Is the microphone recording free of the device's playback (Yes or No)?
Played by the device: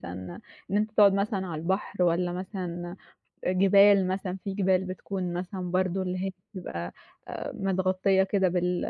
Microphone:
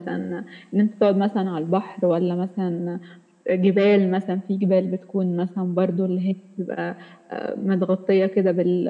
No